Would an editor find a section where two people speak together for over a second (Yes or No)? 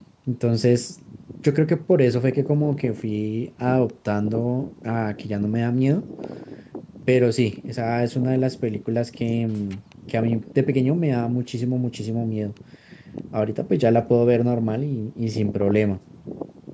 No